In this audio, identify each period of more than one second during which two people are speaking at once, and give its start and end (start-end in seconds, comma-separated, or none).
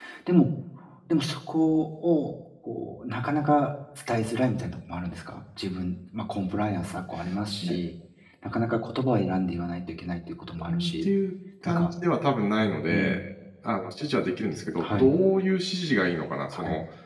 none